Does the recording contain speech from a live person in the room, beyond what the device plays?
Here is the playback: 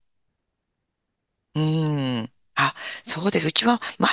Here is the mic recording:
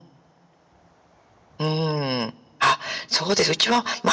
No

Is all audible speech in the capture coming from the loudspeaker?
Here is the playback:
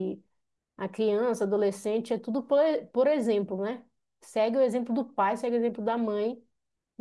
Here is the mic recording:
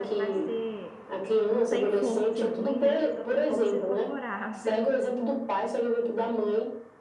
No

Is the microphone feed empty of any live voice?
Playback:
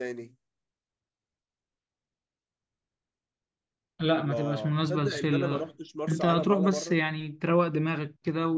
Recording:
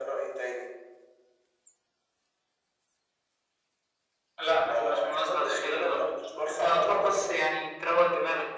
Yes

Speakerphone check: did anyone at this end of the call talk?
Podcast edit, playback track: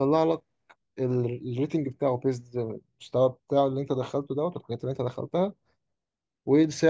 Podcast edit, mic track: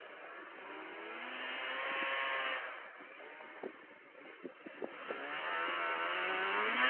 No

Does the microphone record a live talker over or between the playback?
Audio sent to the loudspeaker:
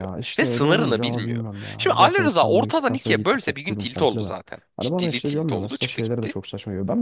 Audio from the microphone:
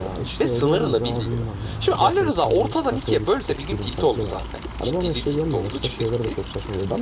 No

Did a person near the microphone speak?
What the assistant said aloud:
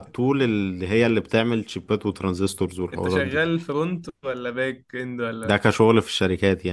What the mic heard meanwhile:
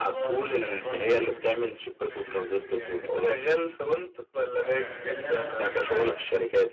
Yes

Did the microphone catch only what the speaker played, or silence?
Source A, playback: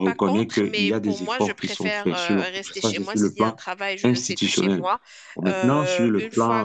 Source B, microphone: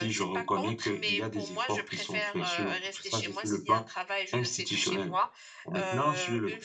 Yes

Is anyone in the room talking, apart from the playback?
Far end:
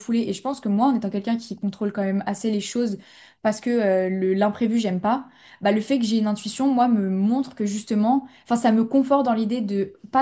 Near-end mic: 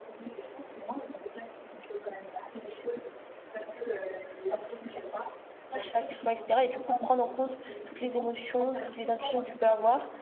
Yes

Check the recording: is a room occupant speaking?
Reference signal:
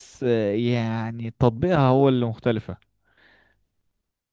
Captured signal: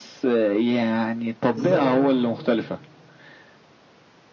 Yes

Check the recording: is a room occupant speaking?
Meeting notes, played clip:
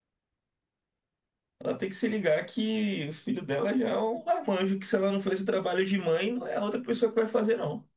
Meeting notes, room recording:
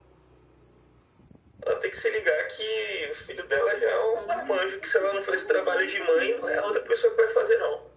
Yes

